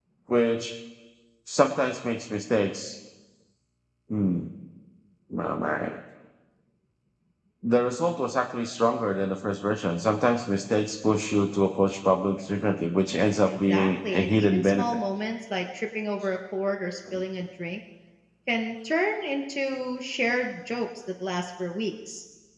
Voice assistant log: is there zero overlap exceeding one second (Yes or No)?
No